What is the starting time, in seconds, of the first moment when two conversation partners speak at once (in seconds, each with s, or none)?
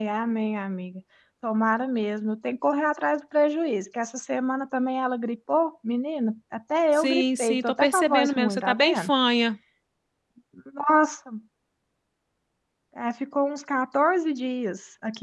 6.9 s